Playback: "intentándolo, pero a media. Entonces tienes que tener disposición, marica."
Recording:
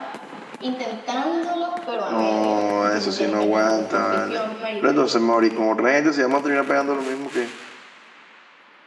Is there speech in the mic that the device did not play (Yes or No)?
Yes